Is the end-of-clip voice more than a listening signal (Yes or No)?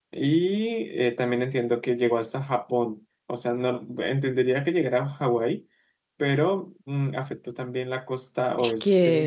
Yes